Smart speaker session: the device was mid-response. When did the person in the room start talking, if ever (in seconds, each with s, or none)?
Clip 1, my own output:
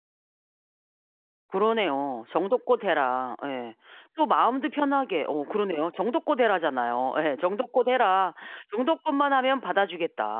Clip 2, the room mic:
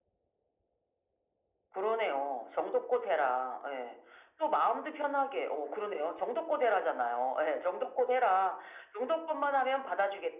none